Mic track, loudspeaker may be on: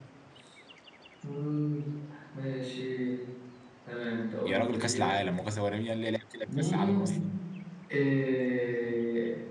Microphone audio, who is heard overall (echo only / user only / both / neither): both